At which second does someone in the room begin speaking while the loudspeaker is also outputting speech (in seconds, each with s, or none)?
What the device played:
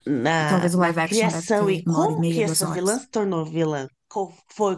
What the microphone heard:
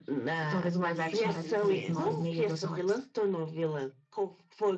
0.9 s